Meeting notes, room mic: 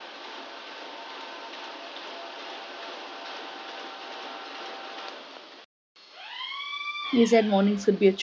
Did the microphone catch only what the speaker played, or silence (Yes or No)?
No